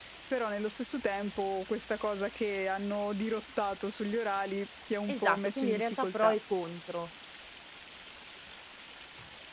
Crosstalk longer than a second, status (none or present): present